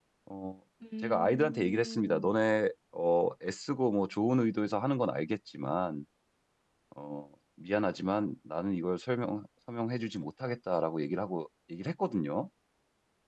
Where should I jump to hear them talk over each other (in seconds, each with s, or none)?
1.0 s